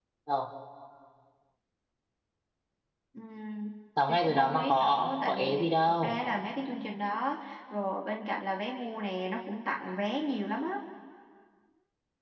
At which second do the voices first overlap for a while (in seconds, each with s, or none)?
4.0 s